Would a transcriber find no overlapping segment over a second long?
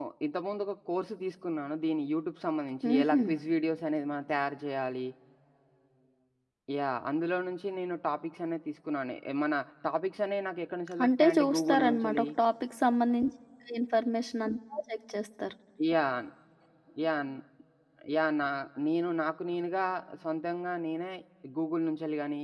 No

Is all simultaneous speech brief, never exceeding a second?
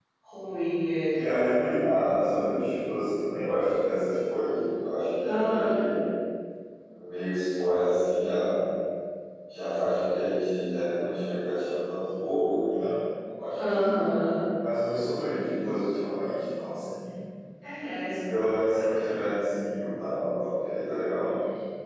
Yes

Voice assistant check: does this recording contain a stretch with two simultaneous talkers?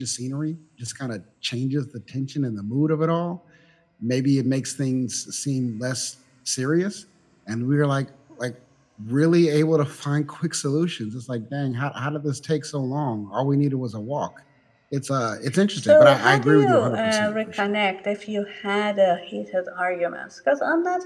Yes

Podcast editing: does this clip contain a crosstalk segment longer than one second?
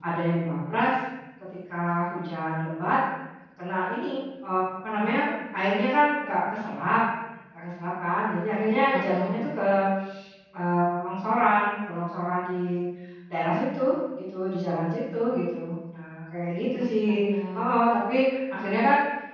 No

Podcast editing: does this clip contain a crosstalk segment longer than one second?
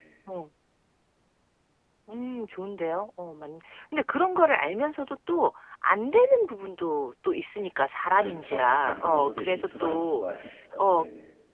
Yes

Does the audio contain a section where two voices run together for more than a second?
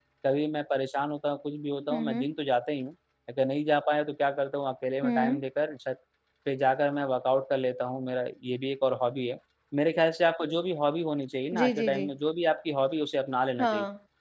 No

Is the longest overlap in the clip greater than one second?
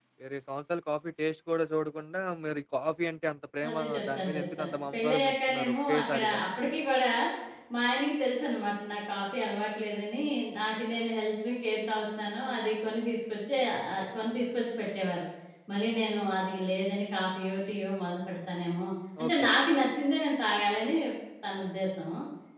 Yes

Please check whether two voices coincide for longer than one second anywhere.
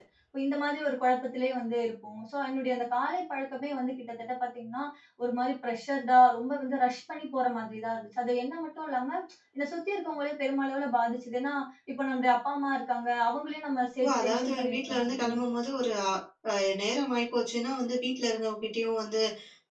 Yes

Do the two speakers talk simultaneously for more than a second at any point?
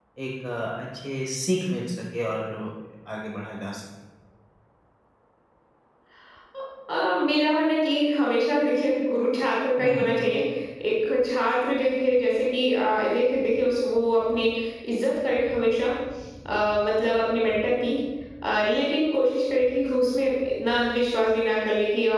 No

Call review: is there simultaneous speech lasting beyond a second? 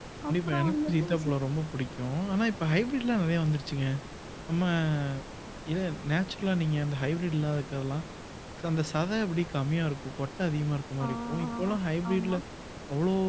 Yes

